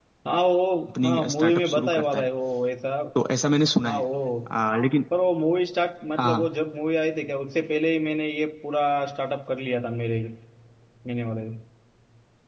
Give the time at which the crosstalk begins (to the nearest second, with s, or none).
1 s